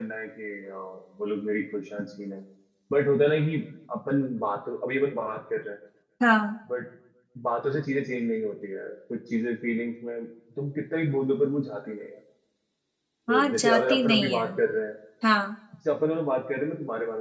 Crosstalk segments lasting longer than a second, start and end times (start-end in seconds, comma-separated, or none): 13.3-14.5